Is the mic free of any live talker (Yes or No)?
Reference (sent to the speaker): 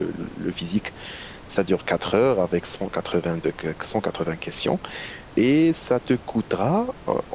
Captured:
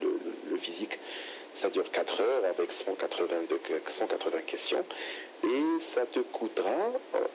Yes